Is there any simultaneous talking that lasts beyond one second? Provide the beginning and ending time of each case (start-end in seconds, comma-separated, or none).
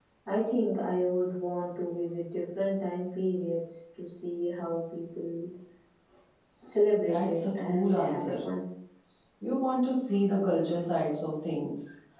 7.1-8.3